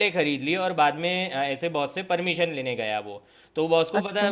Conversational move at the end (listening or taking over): listening